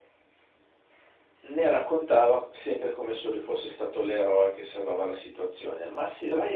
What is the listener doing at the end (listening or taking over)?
listening